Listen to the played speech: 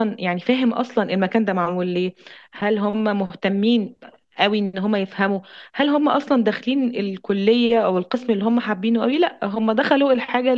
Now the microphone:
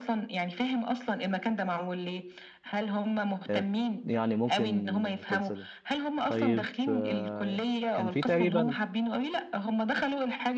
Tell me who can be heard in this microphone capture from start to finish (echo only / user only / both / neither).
both